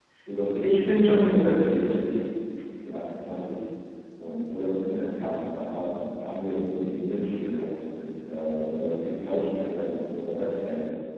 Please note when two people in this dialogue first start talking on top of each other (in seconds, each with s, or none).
0.6 s